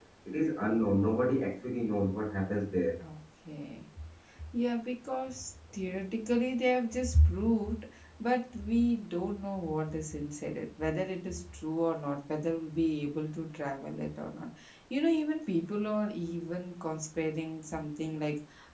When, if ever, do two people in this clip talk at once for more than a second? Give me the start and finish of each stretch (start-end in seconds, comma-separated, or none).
none